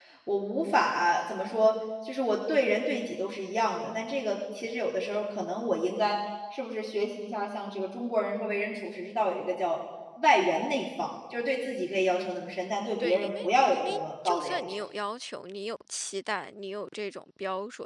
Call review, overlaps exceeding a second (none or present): present